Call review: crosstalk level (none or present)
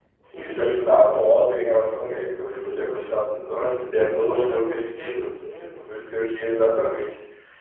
present